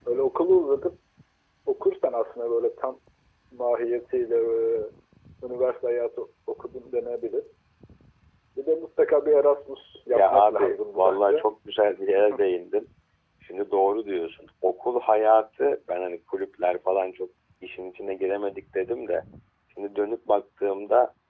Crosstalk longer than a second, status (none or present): present